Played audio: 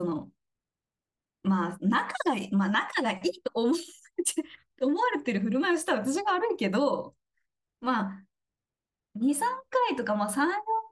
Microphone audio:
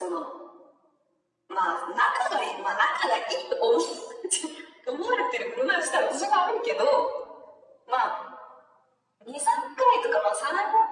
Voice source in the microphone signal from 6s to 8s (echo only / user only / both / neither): echo only